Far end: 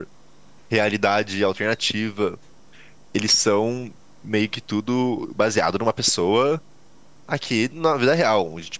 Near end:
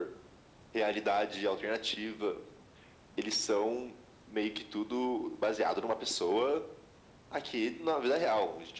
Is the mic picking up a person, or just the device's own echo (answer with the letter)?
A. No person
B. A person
A